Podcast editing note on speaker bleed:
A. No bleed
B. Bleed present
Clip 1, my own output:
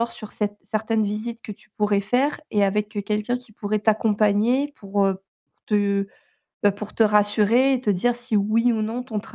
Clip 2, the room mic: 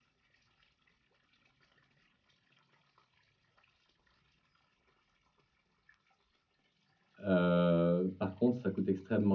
A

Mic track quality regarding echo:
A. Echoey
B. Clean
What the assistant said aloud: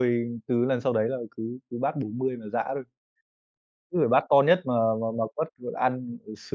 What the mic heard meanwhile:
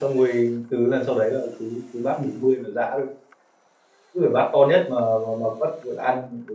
A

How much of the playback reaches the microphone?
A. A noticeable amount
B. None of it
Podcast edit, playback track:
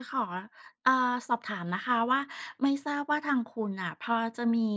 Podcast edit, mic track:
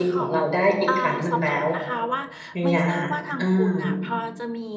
A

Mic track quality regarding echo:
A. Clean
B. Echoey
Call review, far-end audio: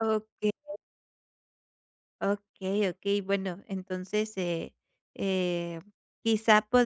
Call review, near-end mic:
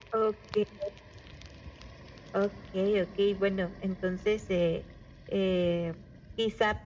B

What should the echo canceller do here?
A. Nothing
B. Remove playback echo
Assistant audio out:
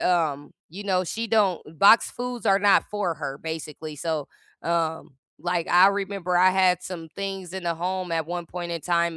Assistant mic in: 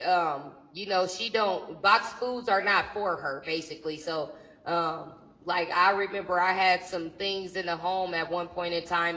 B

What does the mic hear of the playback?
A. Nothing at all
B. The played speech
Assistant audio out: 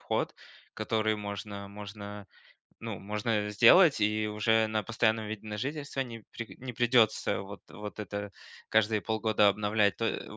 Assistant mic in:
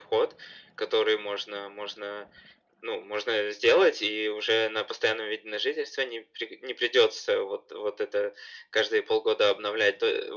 B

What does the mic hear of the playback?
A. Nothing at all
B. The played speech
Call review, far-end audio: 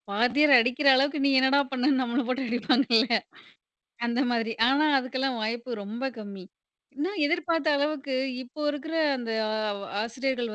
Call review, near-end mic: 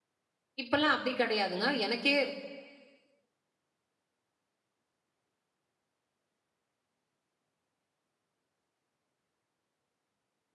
A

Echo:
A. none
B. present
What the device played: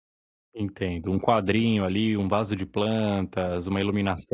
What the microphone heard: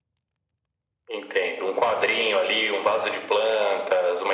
B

